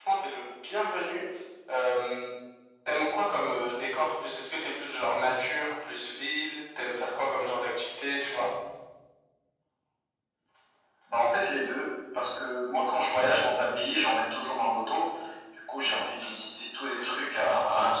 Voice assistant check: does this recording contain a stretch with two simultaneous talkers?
No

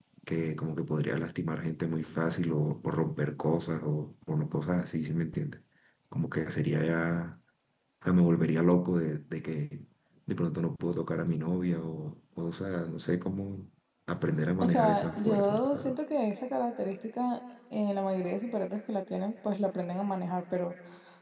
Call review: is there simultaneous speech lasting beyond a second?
Yes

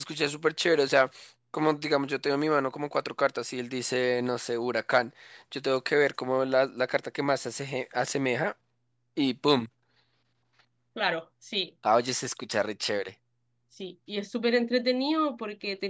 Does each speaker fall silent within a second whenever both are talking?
Yes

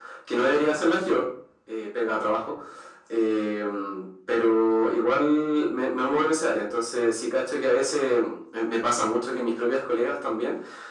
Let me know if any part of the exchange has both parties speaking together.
No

